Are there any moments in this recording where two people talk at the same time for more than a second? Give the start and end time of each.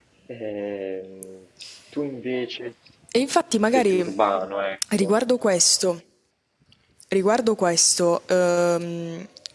none

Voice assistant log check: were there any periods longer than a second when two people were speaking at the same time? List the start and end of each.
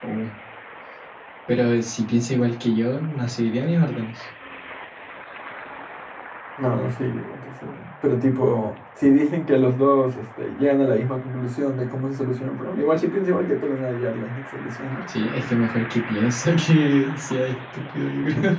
none

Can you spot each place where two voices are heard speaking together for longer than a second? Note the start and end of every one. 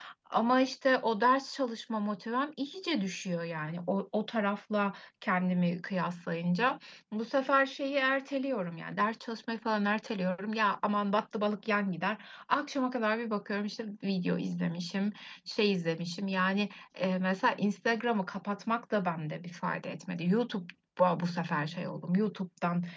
none

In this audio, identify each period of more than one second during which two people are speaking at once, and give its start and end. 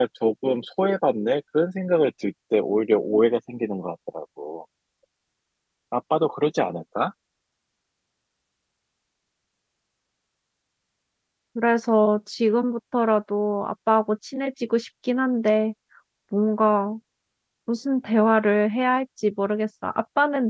none

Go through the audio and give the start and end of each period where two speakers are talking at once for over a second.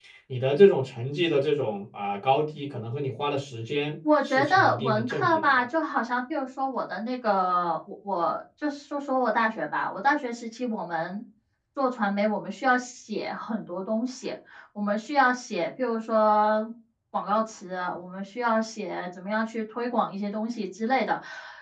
4.2-5.5

